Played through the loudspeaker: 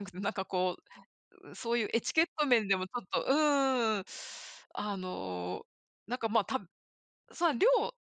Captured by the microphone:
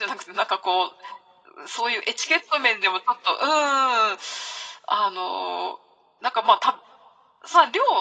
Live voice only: none

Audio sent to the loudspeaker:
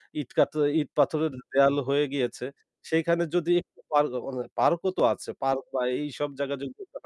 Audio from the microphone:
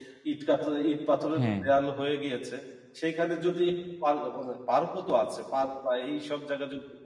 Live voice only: হ্যাঁ।

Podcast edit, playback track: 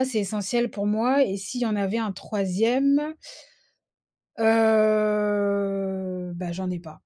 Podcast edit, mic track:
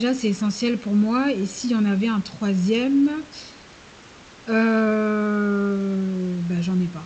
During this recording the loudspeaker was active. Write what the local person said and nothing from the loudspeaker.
none

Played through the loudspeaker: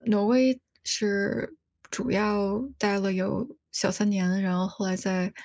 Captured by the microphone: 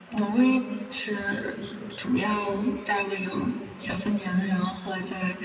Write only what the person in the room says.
none

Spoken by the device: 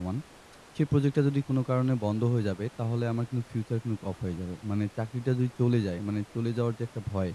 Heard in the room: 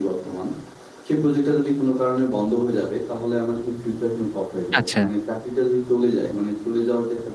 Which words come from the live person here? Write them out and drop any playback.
আচ্ছা।

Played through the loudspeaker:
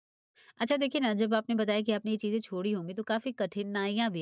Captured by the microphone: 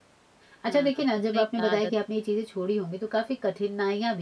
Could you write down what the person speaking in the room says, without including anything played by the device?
हाँ। सही कहा, आदत।

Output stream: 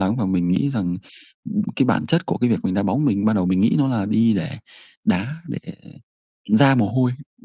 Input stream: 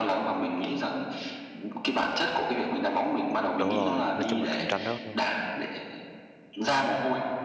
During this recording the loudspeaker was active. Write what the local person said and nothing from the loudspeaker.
Đúng rồi, nói chung là cạnh tranh rất, ơ

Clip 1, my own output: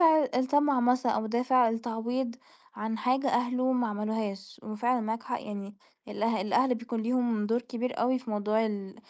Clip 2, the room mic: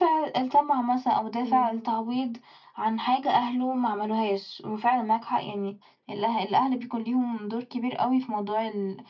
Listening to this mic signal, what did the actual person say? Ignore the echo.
أيوه.

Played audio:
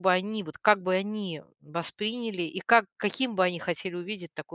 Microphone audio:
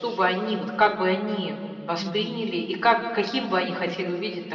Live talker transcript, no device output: Мгм.

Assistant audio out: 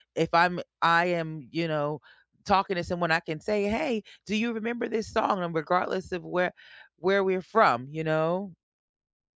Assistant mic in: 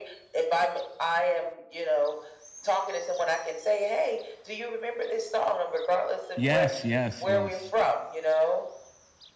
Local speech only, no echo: Yes, yes, yes.

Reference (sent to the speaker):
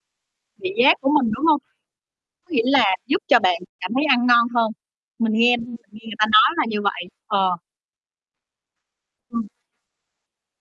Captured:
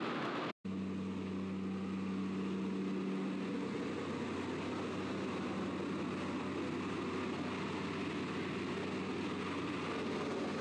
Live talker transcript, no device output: none

